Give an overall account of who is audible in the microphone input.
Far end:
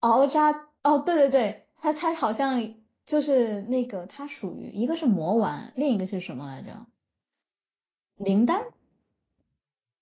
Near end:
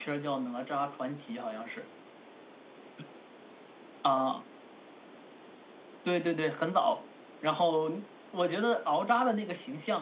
user only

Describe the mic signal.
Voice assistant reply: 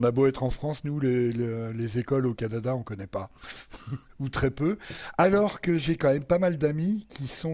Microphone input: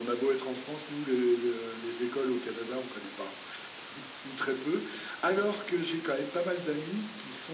echo only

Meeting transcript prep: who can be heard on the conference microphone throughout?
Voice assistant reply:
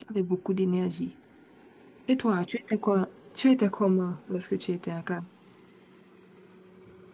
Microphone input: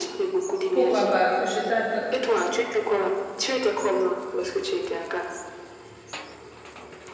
both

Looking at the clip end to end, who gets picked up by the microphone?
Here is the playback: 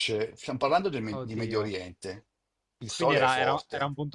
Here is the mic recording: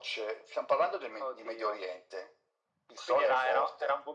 echo only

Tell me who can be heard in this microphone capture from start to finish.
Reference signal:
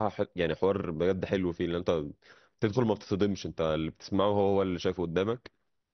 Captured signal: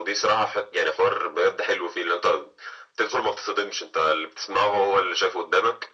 echo only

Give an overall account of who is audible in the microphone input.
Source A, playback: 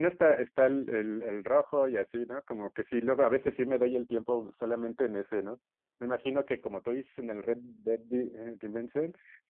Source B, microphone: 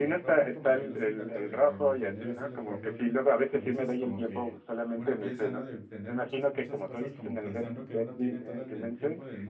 both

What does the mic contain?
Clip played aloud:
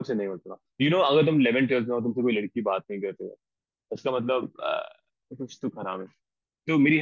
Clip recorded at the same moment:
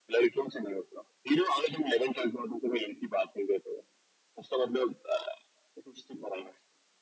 echo only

